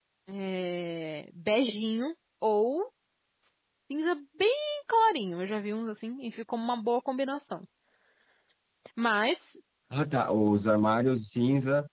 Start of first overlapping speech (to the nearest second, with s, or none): none